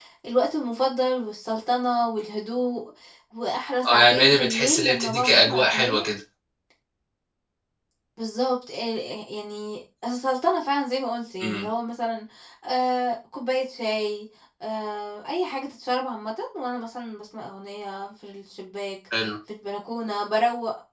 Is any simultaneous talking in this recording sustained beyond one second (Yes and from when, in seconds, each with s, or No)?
Yes, from 3.8 s